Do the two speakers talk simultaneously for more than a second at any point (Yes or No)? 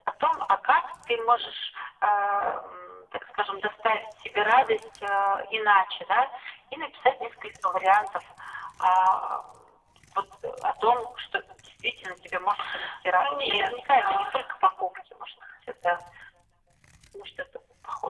Yes